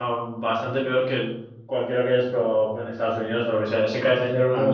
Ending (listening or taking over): taking over